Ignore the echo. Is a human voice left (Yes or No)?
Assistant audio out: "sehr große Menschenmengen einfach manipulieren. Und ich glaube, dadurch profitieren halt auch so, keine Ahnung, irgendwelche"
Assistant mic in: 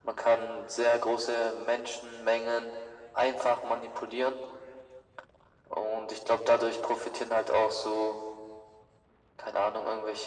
No